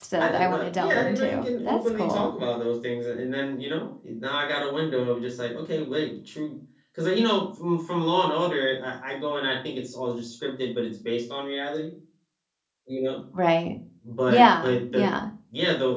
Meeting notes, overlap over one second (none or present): present